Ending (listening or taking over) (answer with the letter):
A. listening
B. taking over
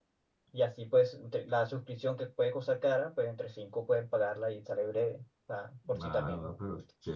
B